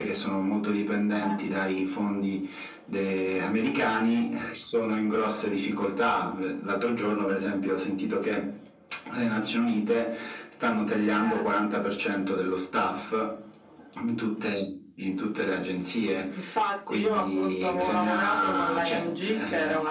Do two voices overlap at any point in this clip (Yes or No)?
Yes